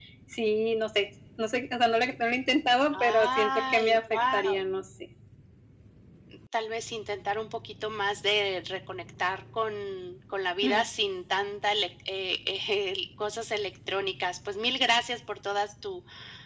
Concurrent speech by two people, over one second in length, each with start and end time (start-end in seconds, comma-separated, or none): 2.9-4.6